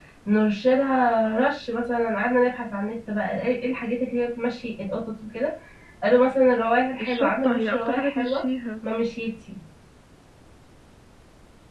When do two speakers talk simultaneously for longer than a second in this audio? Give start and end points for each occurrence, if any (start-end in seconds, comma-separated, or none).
7.0-8.4